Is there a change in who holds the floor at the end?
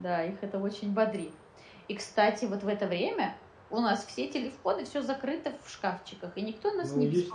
Yes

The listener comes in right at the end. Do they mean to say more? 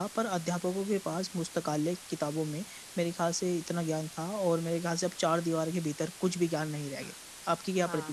Yes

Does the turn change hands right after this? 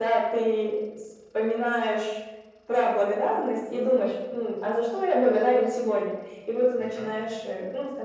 No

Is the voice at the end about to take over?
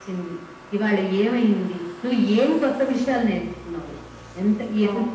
No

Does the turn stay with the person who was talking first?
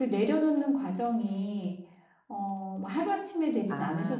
No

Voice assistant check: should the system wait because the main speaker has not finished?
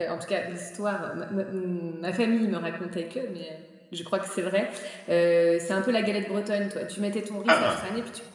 Yes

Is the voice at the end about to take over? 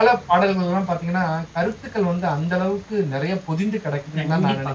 Yes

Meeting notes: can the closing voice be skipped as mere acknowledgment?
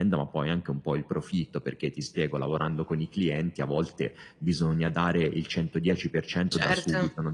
Yes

